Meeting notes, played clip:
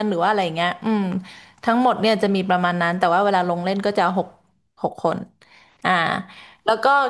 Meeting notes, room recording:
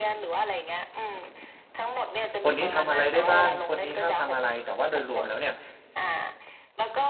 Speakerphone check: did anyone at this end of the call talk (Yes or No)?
Yes